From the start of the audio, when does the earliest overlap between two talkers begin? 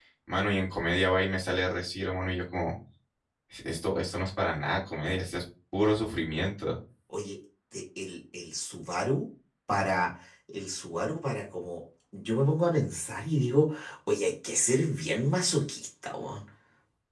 none

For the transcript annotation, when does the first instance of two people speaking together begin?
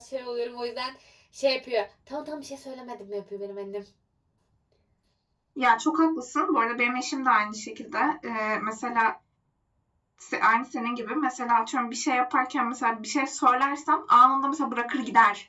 none

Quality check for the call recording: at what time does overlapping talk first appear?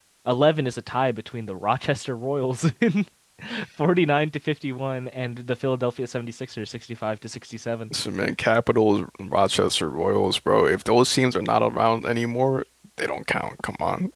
none

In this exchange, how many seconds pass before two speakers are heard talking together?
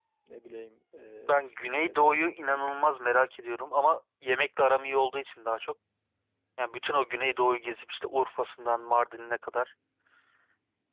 1.3 s

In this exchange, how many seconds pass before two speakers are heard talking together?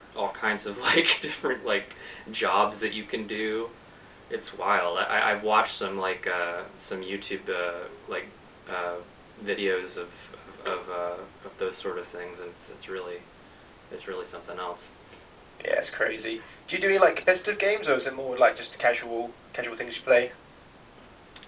none

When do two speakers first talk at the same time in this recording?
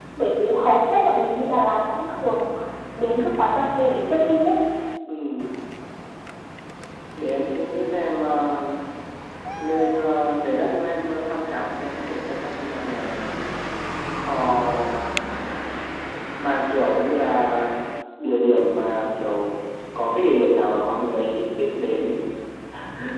none

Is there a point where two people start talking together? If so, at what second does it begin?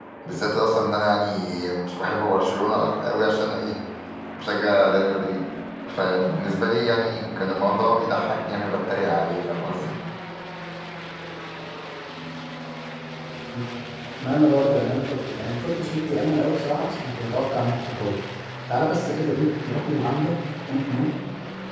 none

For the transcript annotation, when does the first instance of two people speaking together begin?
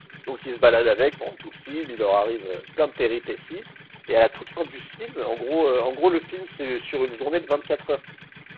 none

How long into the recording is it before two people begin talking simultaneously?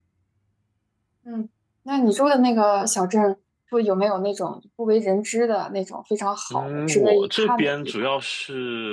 6.5 s

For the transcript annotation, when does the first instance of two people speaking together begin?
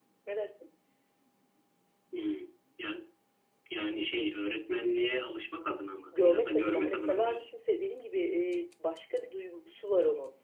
6.1 s

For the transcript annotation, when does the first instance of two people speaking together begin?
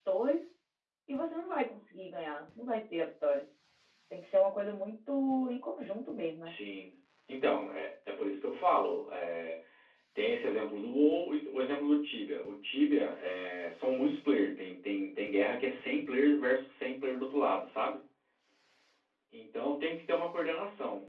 none

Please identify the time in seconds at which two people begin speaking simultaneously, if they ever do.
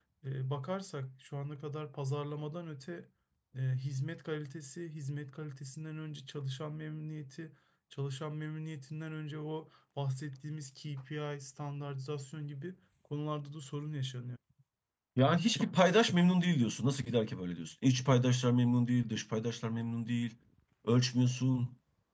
none

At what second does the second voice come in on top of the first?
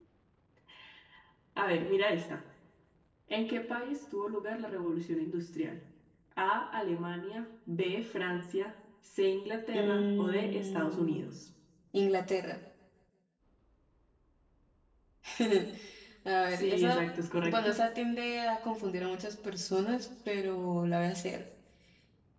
9.7 s

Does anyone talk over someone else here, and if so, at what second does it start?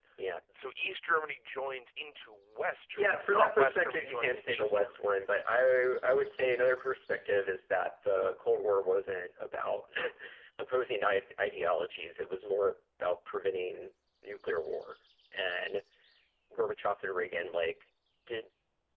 3.0 s

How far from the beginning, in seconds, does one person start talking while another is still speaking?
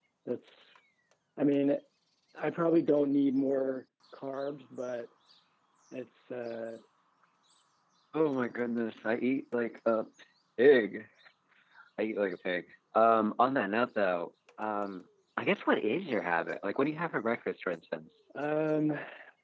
none

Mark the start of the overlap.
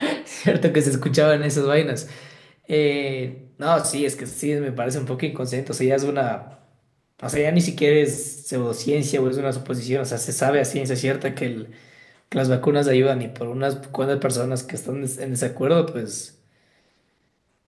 none

